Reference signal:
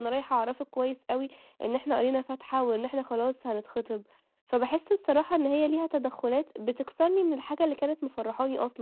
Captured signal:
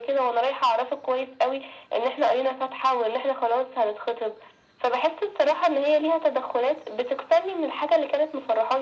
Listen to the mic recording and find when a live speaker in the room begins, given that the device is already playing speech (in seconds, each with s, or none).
none